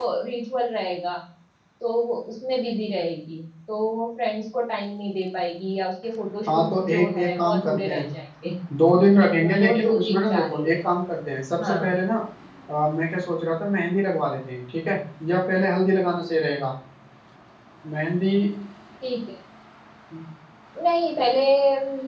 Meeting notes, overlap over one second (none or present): present